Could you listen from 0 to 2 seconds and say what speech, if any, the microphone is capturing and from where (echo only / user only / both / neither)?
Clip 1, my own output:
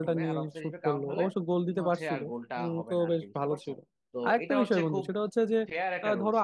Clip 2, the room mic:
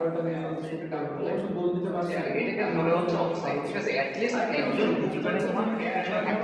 echo only